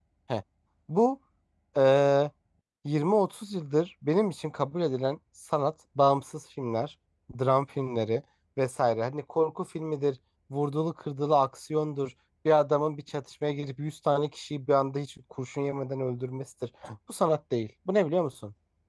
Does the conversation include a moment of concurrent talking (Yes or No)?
No